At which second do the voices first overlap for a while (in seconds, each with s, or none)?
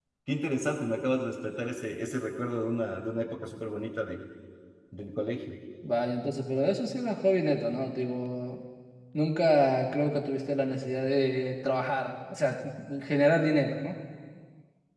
none